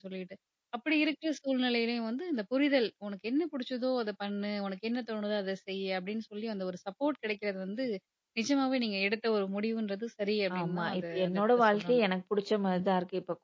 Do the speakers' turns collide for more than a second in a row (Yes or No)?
Yes